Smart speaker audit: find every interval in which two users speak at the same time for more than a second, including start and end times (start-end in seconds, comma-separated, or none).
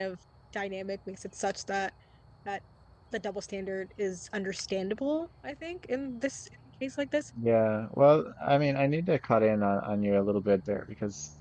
none